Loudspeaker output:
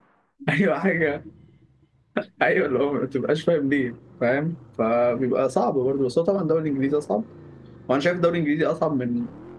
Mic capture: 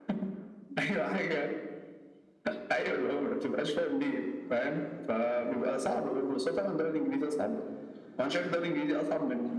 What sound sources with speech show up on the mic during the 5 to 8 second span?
echo only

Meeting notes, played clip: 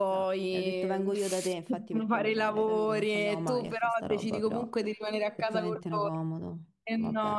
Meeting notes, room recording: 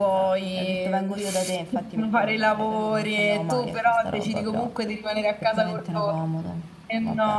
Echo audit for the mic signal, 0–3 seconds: echo only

